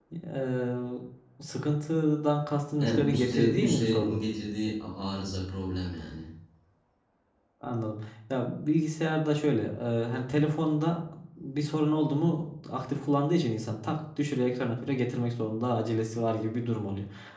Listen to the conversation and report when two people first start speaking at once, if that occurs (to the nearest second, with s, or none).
3 s